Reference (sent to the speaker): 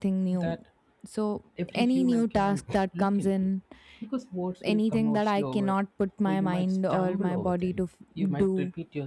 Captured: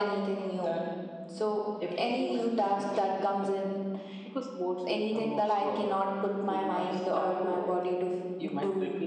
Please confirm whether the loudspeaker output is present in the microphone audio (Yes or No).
Yes